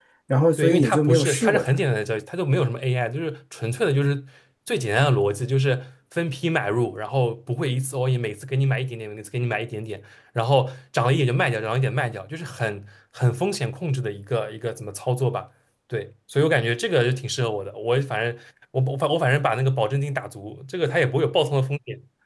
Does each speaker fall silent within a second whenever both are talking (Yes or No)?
No